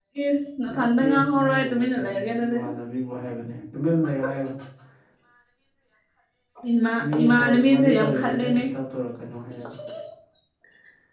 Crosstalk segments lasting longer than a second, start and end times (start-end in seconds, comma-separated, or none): 0.7-2.6, 7.1-8.6